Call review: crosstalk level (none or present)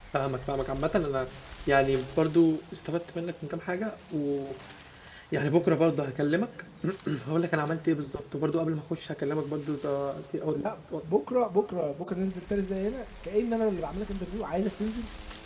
none